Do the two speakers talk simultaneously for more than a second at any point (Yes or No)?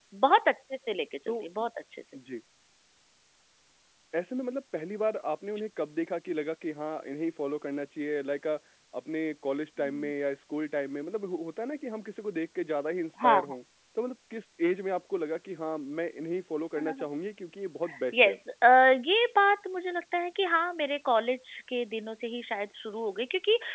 No